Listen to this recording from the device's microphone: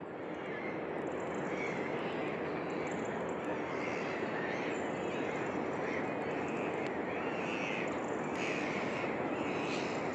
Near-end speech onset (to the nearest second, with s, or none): none